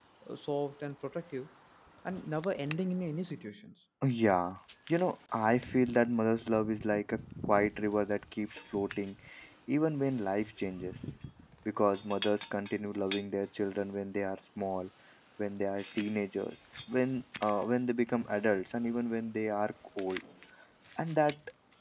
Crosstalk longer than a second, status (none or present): none